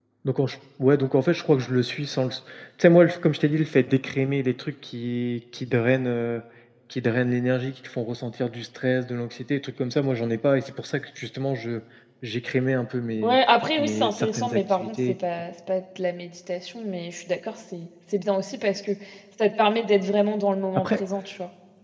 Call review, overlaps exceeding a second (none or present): present